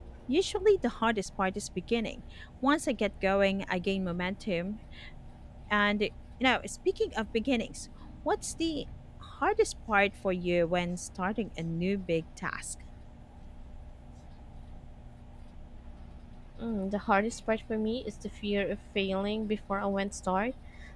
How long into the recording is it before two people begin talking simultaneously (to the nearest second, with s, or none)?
none